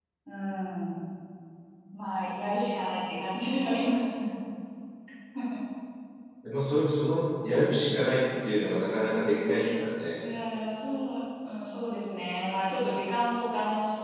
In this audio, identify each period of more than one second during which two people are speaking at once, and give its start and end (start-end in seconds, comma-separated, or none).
none